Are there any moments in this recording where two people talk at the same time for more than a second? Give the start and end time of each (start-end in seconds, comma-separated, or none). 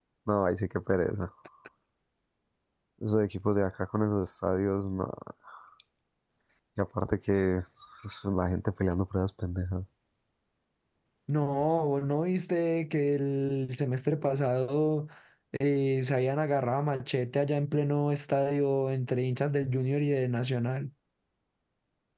none